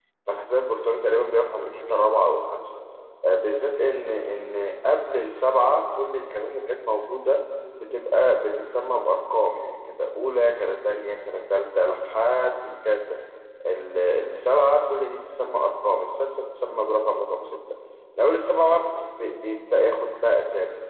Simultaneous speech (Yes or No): No